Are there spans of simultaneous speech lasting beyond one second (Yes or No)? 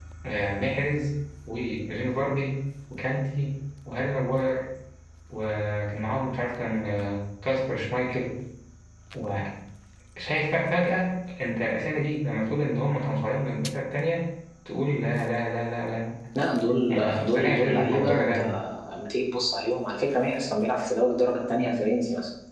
Yes